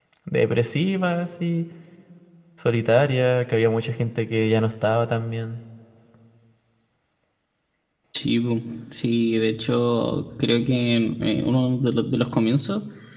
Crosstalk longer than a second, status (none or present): none